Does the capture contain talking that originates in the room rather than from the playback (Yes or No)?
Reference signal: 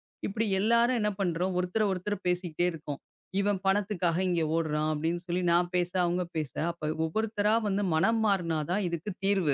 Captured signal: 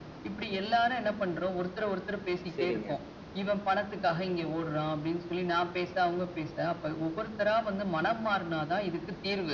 Yes